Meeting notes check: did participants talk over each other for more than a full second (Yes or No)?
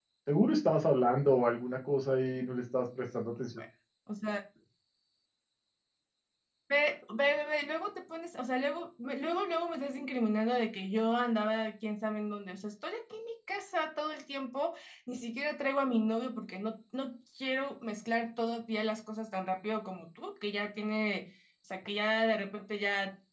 No